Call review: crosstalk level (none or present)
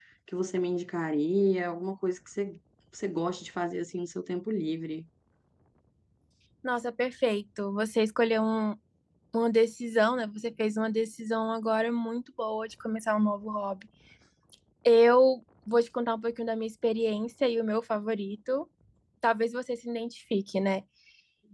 none